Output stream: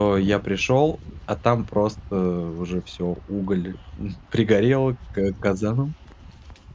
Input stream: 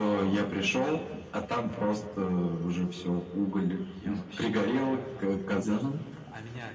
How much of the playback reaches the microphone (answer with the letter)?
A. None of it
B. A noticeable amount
B